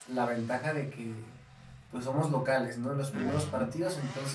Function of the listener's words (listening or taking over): listening